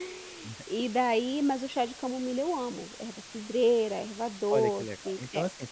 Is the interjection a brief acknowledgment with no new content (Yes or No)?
No